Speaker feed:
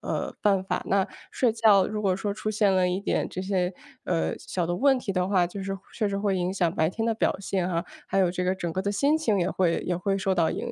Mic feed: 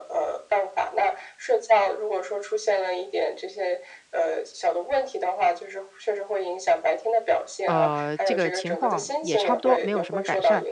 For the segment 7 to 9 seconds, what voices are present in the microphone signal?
both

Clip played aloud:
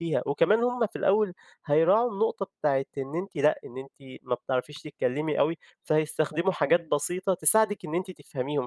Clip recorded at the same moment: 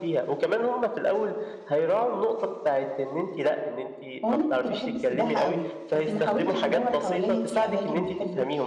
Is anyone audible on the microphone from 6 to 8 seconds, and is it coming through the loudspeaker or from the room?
both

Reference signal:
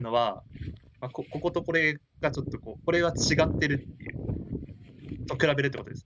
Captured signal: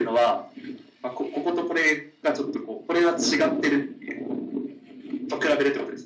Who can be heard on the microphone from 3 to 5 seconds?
echo only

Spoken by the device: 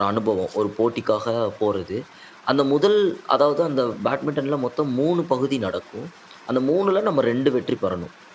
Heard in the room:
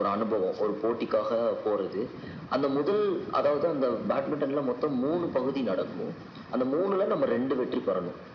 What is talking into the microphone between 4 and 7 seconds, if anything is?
echo only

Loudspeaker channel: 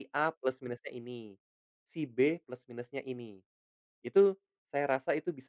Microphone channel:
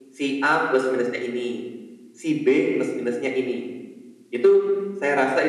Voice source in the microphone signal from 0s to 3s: echo only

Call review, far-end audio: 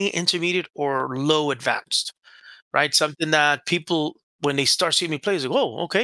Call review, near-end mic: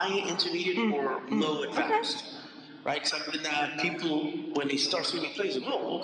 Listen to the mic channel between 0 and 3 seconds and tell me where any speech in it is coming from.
both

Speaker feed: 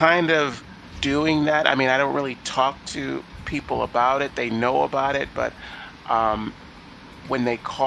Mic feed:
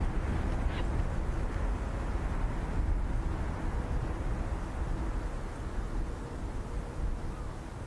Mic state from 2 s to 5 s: neither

